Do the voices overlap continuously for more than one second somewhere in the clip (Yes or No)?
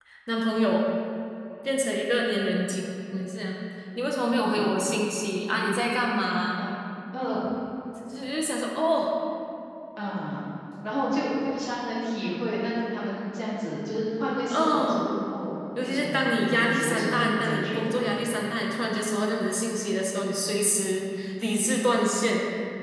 Yes